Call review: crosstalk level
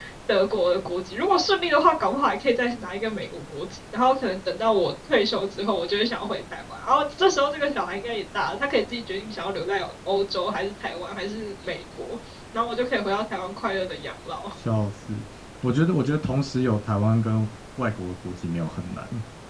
none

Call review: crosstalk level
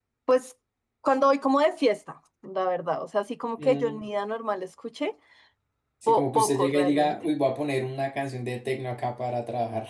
present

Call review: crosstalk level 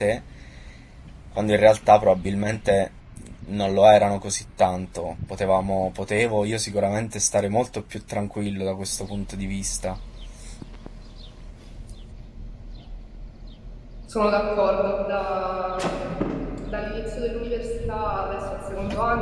none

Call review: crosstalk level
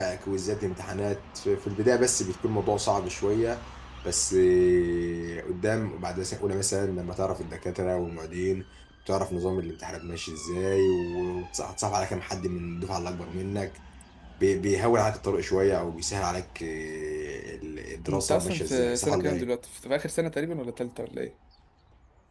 present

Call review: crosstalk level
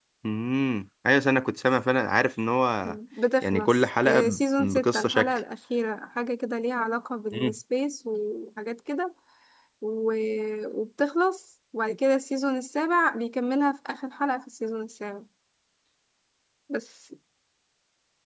present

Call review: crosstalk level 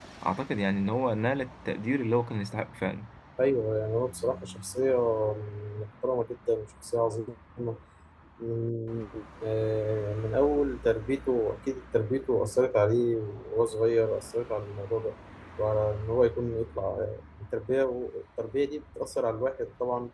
none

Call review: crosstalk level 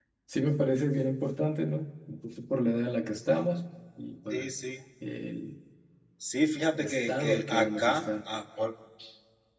present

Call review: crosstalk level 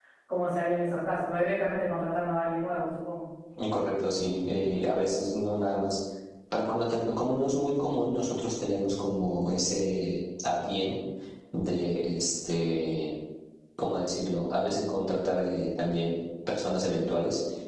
none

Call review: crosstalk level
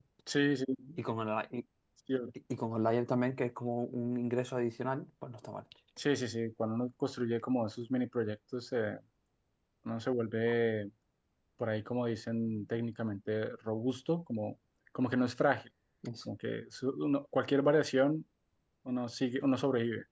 none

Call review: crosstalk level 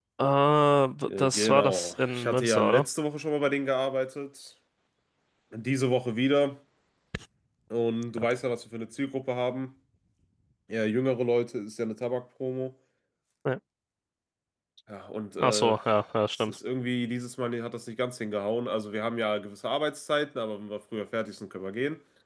present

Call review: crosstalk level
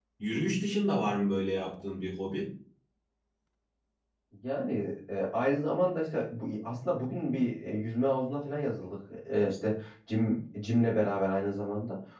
none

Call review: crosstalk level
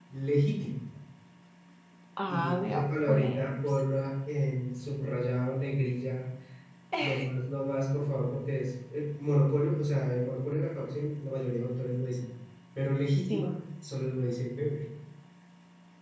present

